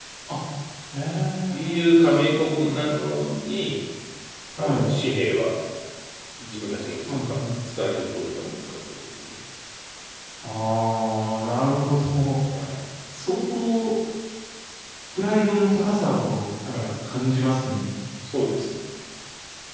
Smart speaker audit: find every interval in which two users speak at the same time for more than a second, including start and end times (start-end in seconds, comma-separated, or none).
1.5-2.9